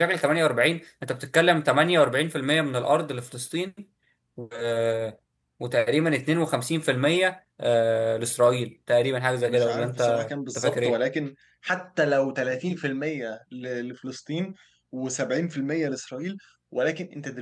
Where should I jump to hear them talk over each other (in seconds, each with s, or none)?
9.3 s